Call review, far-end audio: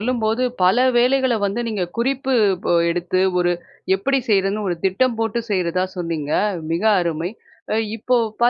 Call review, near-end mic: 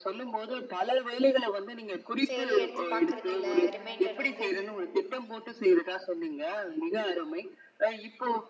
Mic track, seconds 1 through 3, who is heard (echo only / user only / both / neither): both